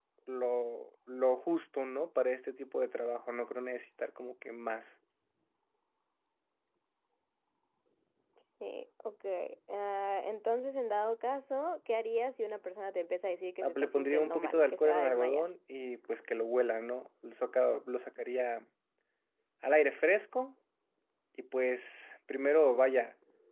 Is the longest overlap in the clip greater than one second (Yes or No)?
Yes